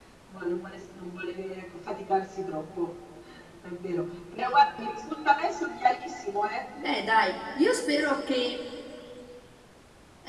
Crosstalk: none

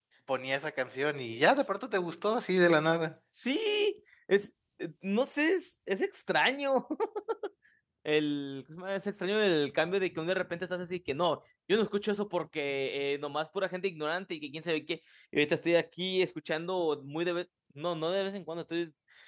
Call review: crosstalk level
none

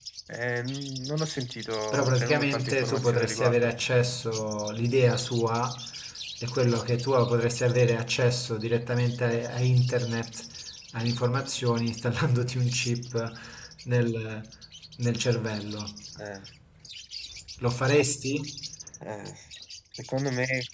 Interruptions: present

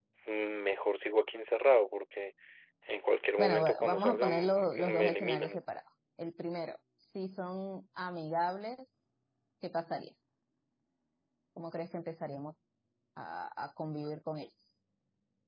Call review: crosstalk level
present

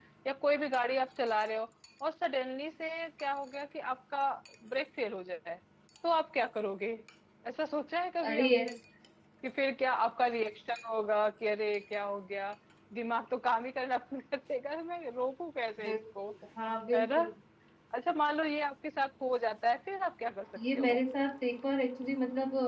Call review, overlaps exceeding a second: none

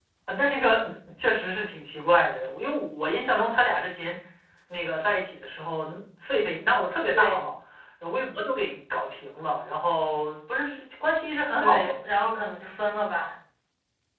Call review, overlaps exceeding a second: none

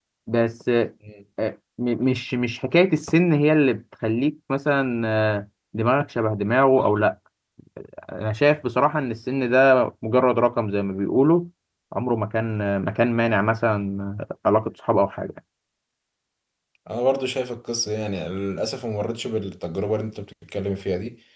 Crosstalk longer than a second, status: none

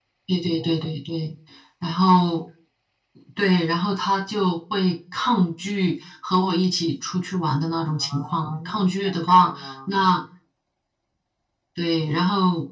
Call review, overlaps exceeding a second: present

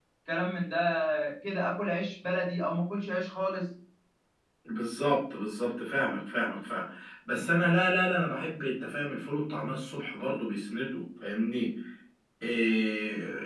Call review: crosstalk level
none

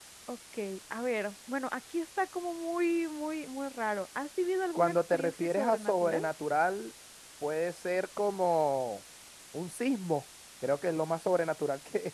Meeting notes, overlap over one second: present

